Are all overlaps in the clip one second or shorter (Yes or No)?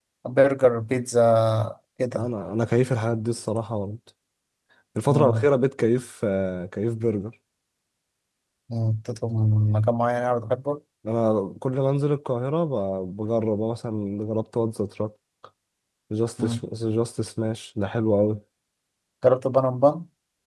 Yes